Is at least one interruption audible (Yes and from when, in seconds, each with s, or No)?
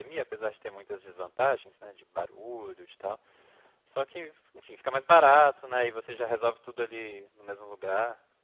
No